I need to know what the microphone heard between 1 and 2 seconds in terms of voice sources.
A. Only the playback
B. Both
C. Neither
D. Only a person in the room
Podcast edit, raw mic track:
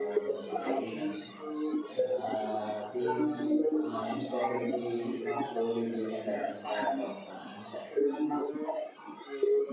B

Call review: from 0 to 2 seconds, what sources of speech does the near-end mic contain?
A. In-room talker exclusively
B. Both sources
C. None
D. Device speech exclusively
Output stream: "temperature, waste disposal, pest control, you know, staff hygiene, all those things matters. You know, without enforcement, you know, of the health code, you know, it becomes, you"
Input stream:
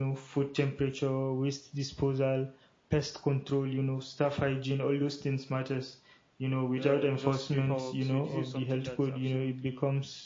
D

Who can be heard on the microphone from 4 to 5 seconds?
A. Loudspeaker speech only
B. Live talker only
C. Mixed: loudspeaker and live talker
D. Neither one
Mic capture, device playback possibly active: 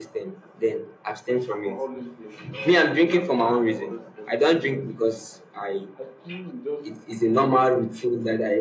C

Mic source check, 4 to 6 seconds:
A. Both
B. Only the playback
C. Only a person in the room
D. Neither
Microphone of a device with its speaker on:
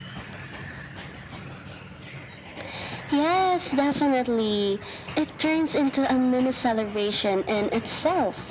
B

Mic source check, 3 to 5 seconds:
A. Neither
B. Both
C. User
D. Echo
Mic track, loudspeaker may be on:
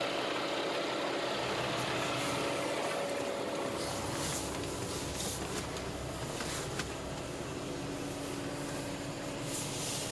A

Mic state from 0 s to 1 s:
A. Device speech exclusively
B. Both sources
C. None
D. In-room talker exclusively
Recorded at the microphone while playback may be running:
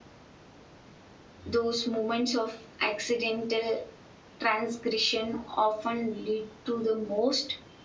C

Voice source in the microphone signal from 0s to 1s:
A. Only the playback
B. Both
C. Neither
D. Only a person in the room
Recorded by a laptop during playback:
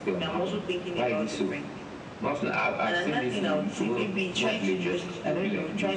A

